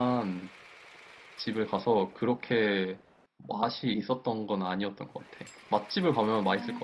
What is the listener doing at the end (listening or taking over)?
taking over